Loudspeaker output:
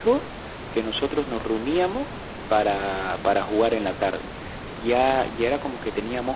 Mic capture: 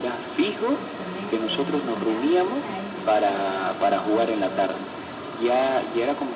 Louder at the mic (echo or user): echo